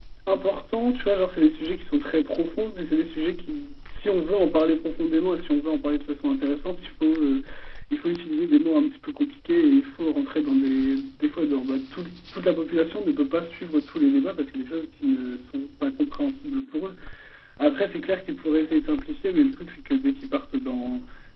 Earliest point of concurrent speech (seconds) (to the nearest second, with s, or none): none